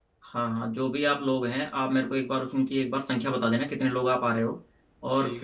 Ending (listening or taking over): listening